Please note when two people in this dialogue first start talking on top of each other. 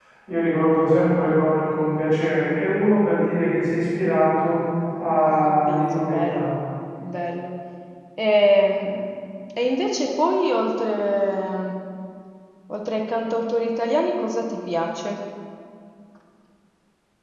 5.2 s

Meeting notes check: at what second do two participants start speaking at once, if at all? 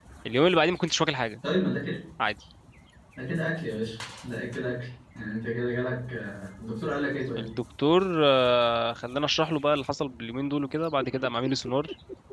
none

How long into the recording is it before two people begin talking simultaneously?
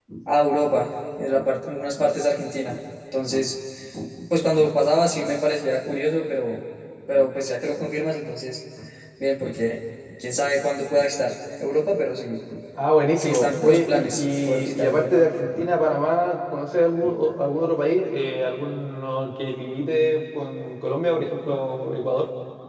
13.2 s

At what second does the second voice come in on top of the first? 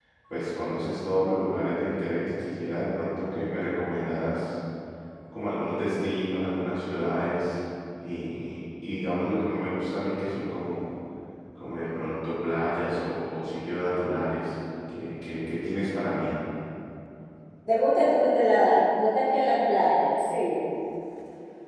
none

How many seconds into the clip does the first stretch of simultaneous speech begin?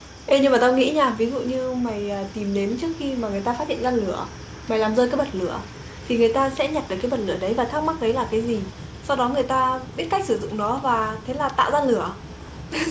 none

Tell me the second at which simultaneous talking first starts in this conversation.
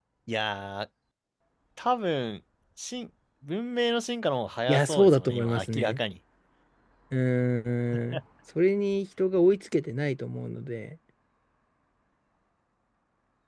4.7 s

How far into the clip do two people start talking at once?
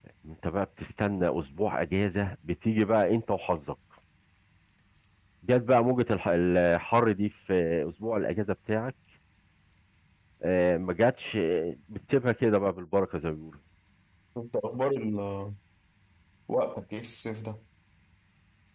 none

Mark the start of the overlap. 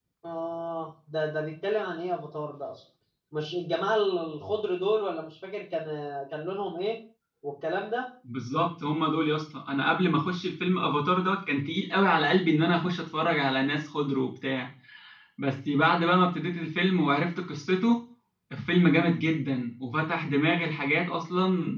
none

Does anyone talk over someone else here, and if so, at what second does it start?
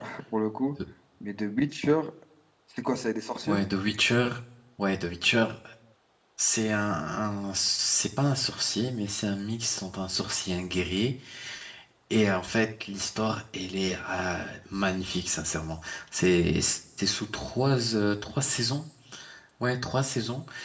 none

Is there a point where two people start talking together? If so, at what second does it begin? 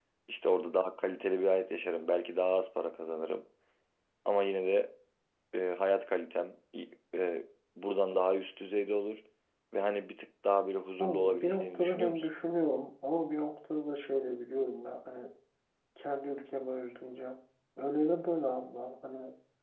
11.0 s

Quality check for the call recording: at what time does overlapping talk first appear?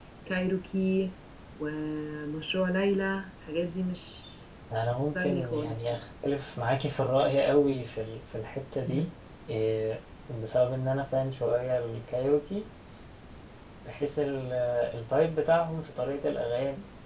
4.7 s

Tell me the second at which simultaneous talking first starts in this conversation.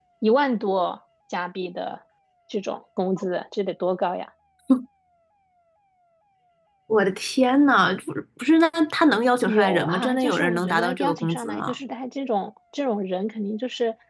9.5 s

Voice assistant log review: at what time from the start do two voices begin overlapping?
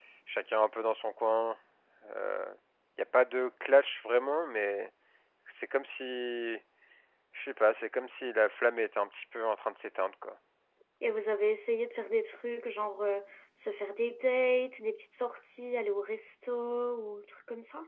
none

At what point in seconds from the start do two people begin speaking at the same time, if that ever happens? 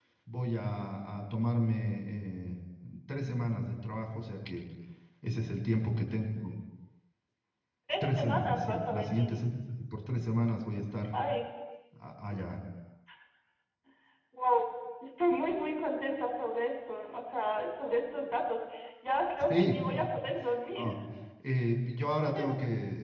8.0 s

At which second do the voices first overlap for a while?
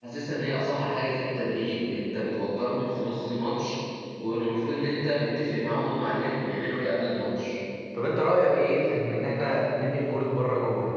none

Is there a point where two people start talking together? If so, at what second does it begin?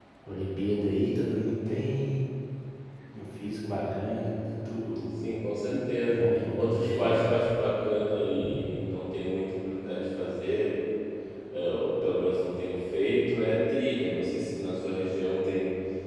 6.1 s

